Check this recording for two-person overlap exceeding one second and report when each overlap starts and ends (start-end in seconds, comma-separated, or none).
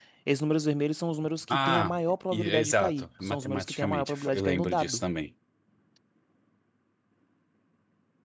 2.3-5.0